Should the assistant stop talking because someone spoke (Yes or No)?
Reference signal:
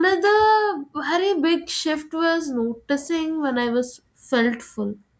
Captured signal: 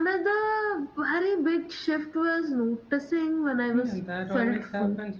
Yes